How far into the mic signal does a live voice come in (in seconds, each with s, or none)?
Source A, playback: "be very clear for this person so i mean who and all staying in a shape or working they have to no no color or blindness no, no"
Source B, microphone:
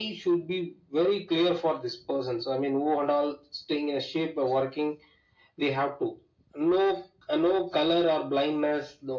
none